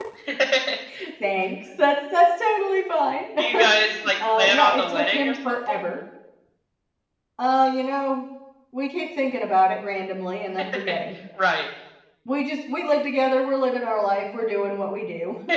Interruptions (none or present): present